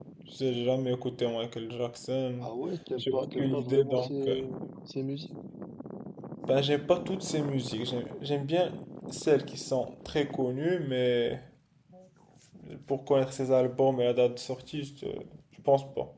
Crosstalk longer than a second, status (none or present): present